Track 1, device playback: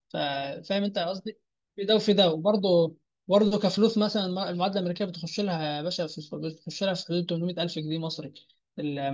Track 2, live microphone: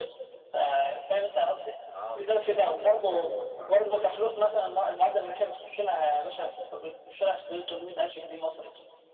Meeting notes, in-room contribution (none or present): present